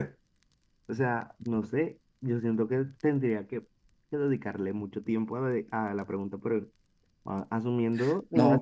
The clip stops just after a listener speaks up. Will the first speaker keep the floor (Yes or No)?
Yes